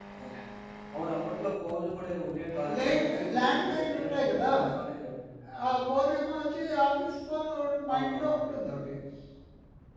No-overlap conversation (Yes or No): No